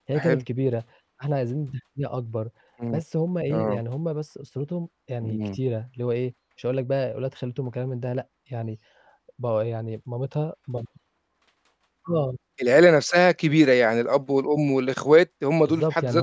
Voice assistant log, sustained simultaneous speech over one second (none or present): none